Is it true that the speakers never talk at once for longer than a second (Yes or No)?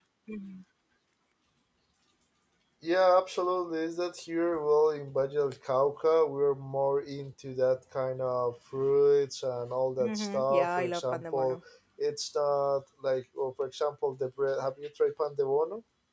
No